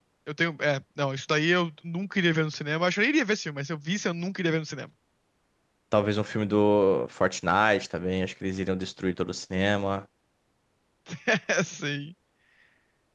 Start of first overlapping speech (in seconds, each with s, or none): none